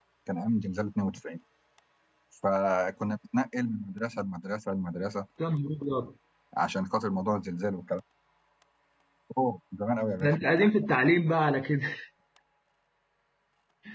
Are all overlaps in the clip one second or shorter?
Yes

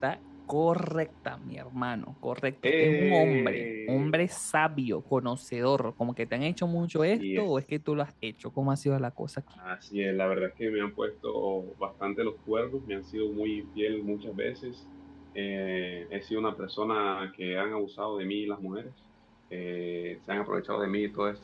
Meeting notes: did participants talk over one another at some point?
Yes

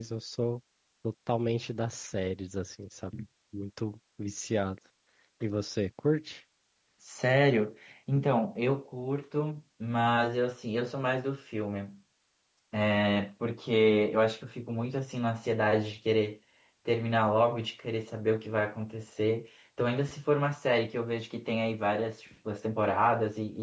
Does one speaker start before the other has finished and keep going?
No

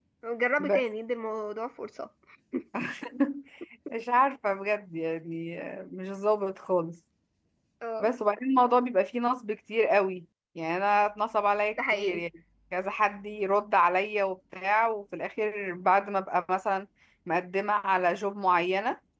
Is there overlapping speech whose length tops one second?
No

